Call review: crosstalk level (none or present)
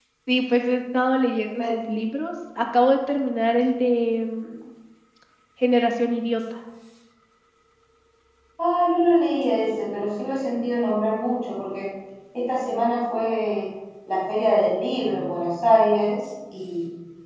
none